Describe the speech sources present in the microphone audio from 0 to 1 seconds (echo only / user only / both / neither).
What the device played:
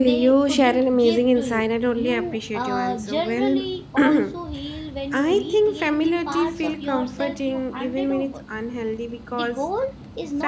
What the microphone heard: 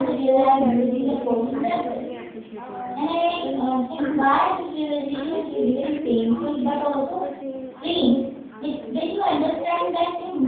both